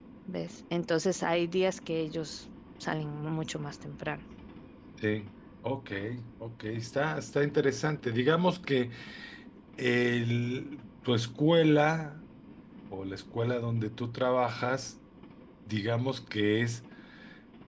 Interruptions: none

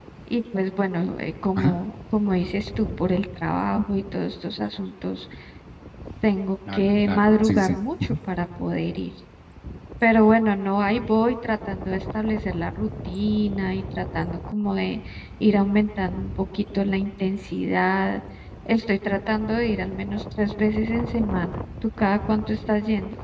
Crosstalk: present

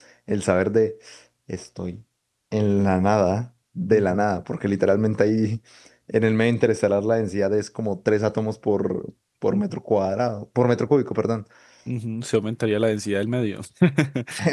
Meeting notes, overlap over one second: none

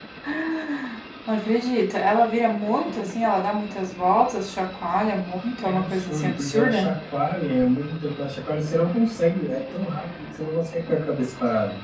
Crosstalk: present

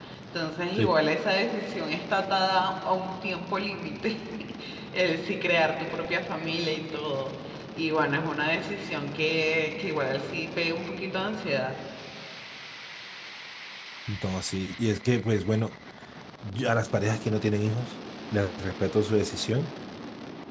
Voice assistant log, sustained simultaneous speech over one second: none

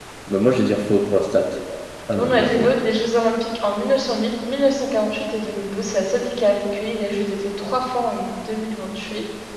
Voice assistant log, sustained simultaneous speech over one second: none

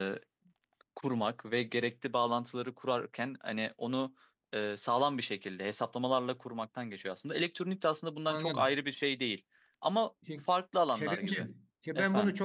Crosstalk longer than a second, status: none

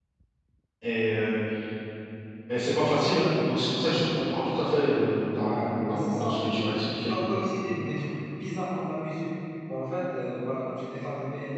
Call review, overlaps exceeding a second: present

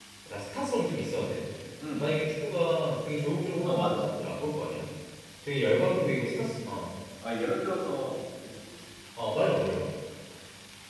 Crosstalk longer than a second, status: none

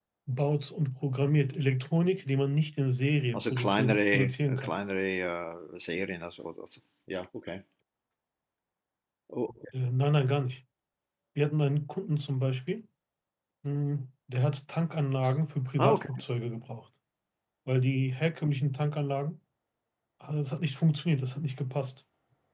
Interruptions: present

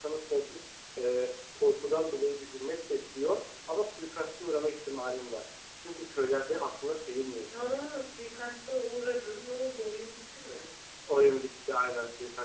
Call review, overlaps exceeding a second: none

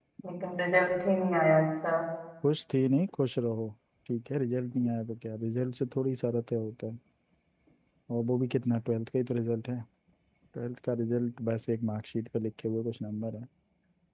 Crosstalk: none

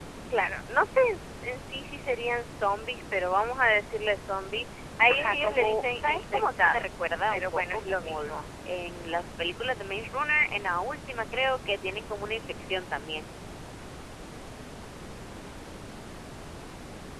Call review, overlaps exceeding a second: present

